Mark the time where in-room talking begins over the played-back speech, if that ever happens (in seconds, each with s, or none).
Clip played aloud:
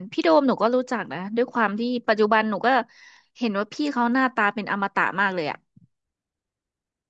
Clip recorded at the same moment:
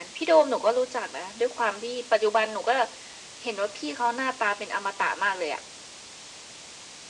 none